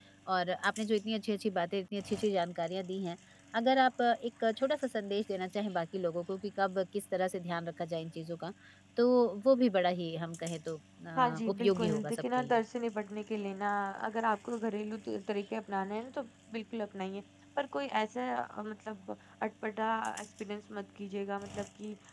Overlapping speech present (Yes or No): Yes